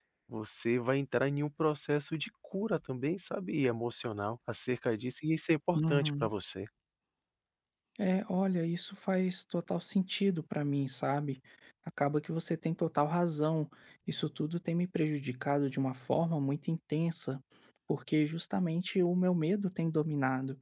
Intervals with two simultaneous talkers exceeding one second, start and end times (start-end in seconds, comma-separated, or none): none